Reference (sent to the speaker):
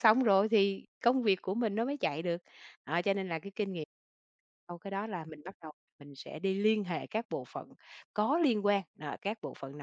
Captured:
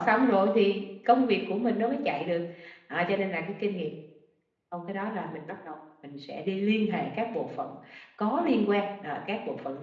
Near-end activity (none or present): none